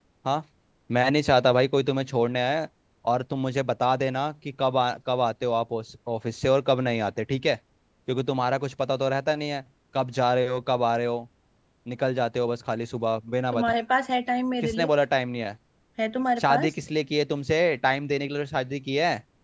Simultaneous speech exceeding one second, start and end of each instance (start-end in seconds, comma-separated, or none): none